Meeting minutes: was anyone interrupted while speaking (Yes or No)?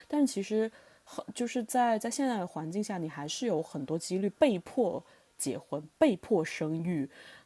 No